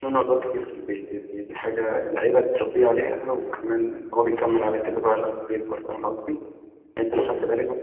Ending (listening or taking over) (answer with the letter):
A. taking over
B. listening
B